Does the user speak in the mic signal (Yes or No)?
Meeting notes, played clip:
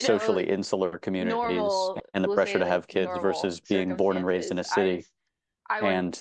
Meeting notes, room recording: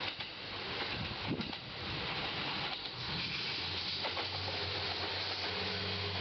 No